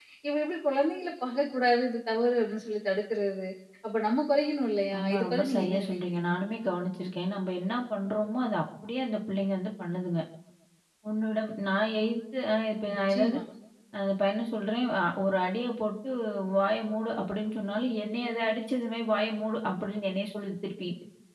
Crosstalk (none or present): present